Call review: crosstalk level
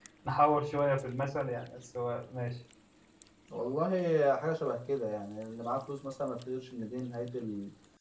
none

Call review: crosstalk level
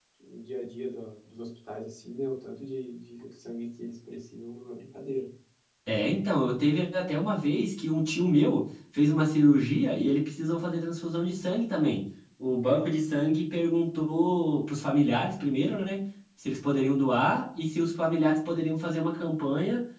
none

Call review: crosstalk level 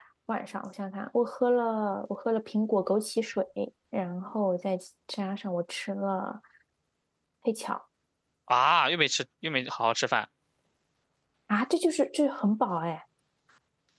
none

